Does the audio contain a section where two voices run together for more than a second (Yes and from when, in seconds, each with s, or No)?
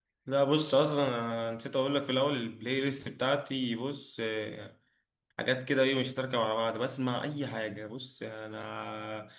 No